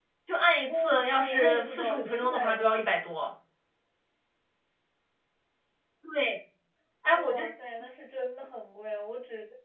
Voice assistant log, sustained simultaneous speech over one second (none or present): present